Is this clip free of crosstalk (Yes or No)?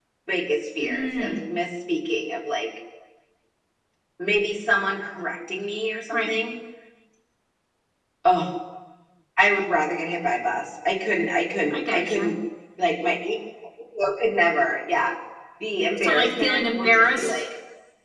No